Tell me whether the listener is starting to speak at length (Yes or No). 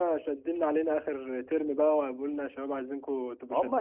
Yes